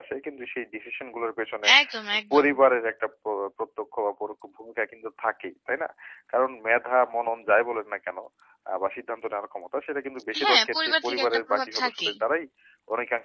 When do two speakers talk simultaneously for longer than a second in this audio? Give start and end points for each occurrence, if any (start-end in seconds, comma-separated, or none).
10.4-12.1